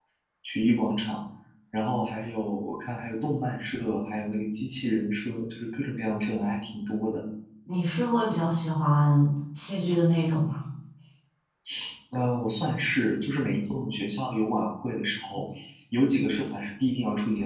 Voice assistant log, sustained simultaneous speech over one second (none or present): none